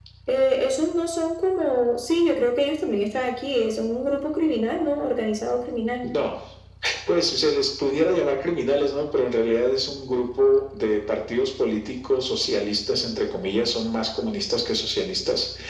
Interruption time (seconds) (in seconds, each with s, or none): none